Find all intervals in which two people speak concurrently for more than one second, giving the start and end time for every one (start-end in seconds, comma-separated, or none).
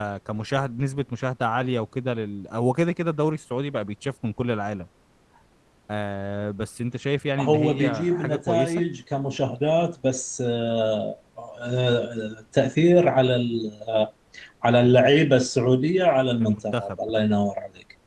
7.4-8.8